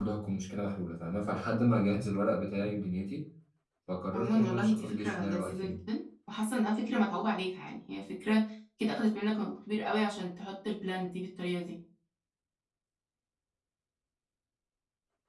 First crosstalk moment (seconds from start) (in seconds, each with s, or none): 4.1 s